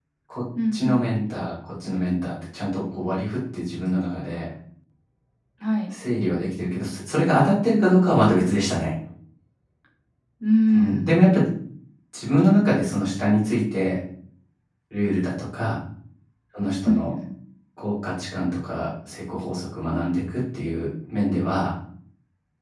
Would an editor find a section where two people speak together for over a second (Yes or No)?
No